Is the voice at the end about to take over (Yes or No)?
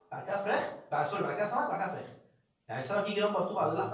No